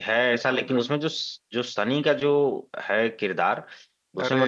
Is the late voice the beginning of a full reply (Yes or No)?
No